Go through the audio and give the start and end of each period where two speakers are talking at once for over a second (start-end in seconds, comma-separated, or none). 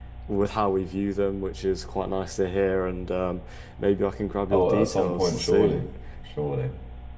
4.5-5.9